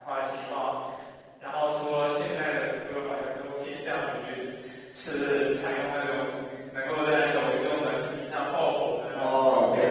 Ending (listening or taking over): taking over